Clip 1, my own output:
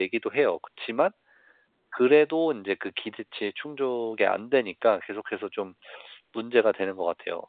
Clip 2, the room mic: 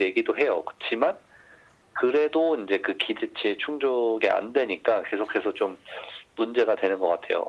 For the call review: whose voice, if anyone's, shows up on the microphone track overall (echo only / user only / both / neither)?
echo only